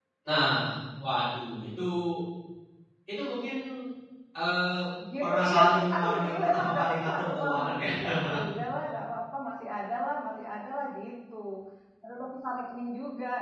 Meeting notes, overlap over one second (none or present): present